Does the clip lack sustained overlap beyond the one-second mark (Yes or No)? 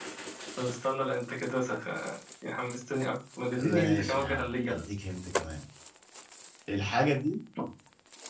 No